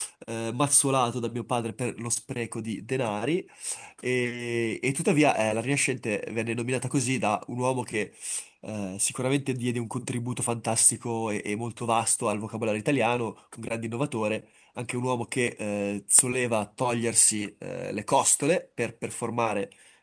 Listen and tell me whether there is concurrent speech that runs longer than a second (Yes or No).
No